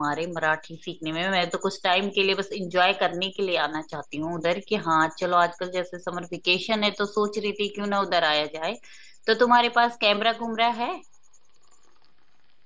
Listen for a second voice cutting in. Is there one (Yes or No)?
No